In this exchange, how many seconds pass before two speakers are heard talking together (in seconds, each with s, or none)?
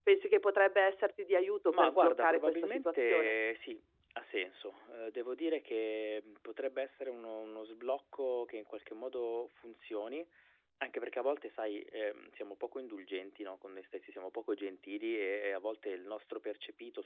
1.7 s